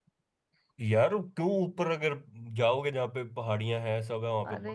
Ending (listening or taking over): taking over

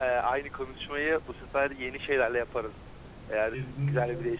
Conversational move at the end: taking over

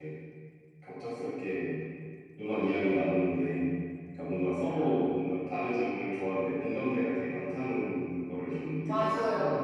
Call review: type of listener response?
taking over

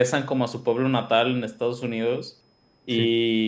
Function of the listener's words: listening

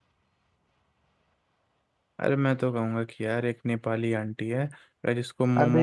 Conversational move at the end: taking over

